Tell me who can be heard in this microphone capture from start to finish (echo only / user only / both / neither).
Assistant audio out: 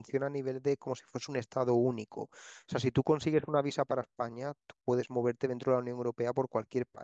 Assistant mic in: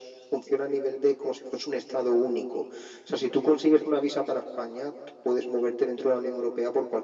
echo only